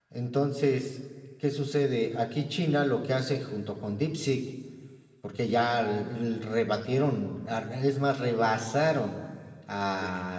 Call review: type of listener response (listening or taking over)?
listening